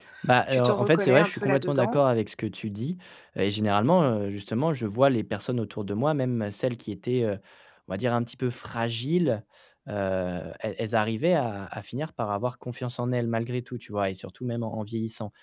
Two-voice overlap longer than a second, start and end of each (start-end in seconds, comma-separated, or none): 0.5-2.0